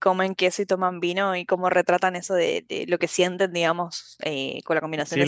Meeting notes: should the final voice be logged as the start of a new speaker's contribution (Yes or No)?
Yes